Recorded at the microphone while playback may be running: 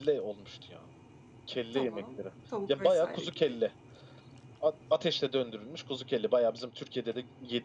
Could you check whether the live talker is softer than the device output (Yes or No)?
Yes